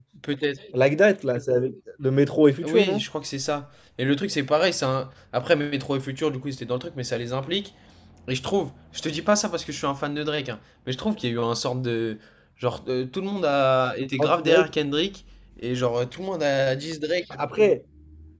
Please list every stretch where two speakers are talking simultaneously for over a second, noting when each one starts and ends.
none

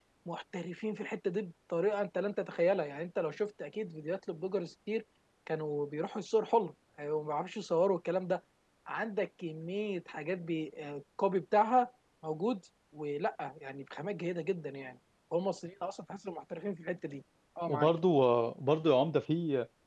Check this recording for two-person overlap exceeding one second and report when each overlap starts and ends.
none

